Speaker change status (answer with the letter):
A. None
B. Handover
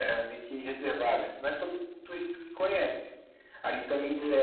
A